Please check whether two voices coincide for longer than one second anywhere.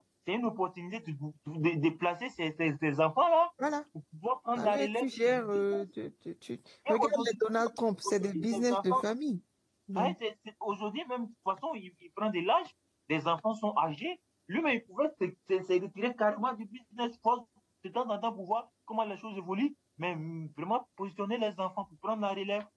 Yes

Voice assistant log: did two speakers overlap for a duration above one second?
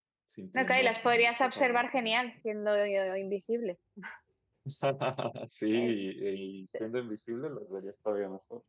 Yes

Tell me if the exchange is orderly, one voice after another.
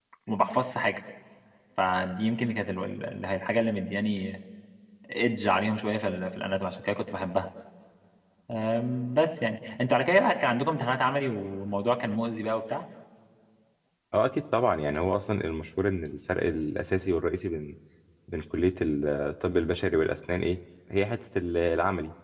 Yes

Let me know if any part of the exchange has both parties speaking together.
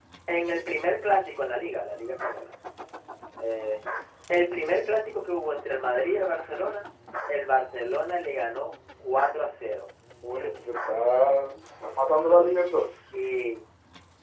No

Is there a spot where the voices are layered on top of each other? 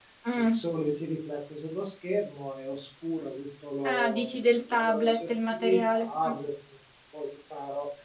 Yes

